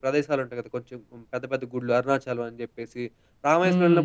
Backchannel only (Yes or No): Yes